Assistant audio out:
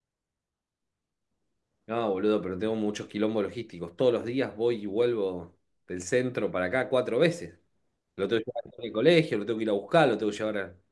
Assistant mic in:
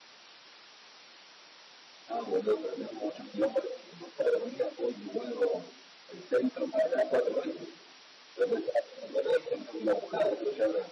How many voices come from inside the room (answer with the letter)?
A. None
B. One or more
A